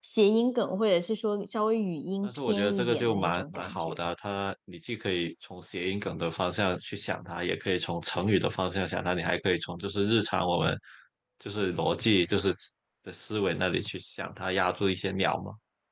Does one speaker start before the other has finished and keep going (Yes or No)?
Yes